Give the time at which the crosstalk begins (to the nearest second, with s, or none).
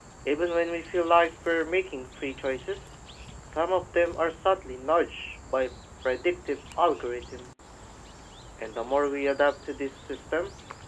none